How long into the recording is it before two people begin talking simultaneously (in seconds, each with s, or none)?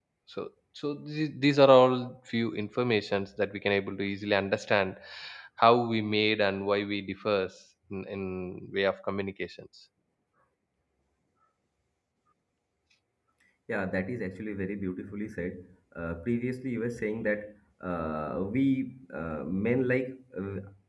none